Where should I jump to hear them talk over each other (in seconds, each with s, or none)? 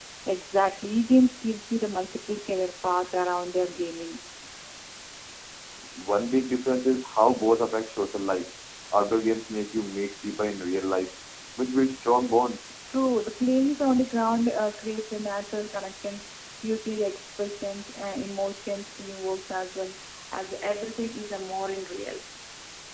none